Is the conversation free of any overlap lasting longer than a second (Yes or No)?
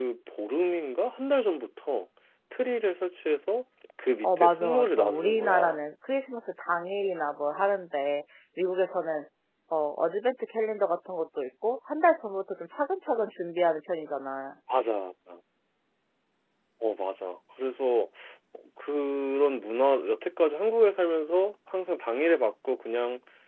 No